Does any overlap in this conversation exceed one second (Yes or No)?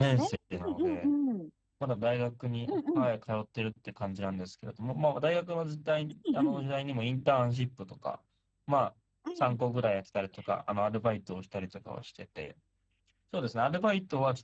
No